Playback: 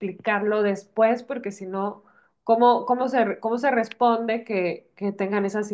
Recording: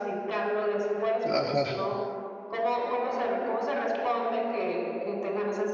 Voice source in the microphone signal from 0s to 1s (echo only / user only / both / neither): echo only